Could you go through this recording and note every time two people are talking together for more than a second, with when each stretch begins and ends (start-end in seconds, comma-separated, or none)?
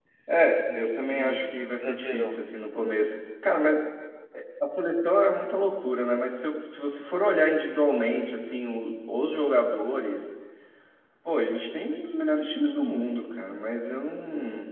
0.8-2.5